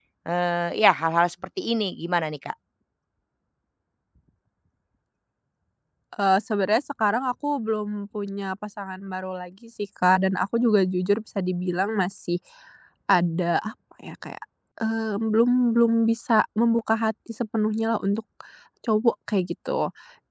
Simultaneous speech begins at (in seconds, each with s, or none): none